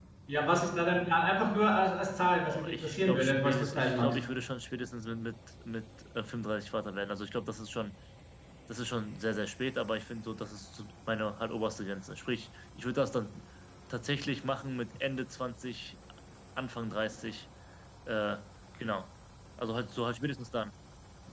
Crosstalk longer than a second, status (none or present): present